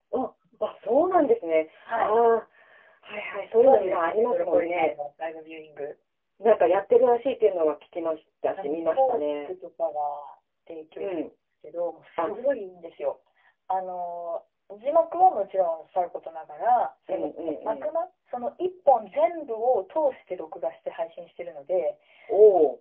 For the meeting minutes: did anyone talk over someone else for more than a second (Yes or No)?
Yes